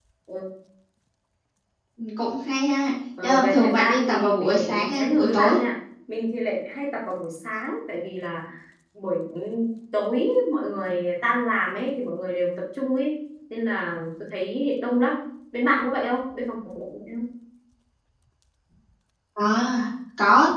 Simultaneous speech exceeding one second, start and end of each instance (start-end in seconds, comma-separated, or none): 3.2-5.6